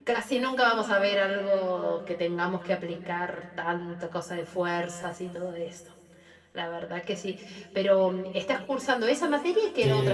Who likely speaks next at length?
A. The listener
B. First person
A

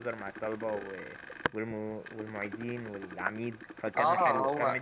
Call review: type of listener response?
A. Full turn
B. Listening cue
A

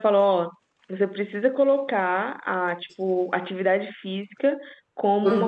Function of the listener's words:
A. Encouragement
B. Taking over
A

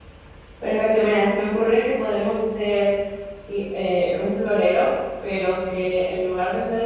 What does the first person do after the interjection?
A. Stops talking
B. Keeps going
B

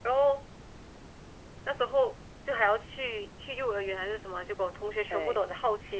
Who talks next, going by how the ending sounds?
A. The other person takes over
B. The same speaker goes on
B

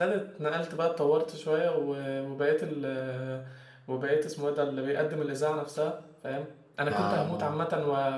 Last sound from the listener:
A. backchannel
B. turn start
A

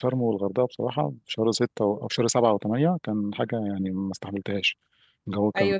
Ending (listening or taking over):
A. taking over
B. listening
A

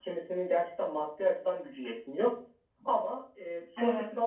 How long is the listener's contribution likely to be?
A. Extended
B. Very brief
B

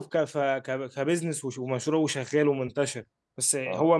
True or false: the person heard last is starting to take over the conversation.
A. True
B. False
B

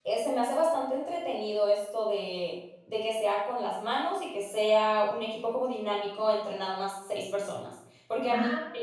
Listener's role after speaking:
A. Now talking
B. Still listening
B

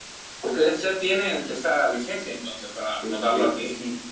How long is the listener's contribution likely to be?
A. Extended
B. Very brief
A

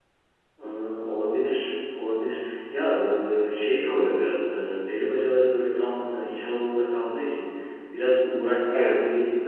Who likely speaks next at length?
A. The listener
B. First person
B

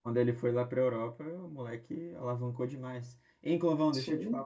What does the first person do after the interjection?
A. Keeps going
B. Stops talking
A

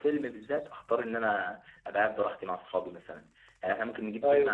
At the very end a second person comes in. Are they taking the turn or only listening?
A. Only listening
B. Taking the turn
A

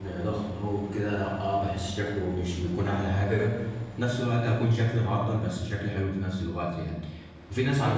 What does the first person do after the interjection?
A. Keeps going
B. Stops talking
A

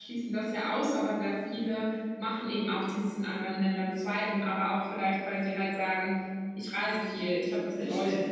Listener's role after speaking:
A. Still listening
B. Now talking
B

